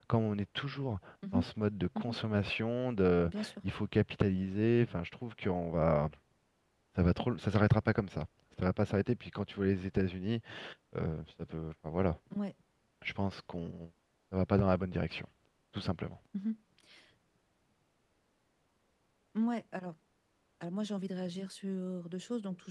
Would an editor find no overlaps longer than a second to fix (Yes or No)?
Yes